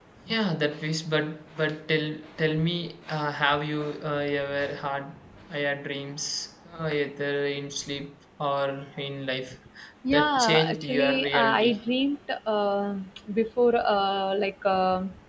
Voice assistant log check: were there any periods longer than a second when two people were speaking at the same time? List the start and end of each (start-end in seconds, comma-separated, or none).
10.1-11.8